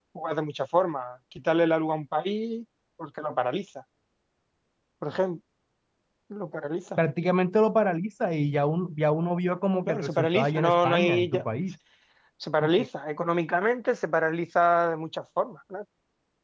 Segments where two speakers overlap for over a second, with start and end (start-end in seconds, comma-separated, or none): 9.9-11.4